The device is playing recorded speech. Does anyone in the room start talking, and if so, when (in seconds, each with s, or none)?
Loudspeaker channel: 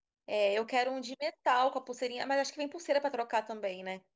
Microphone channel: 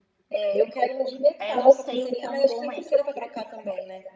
1.4 s